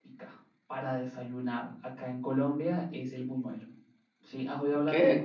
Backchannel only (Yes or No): No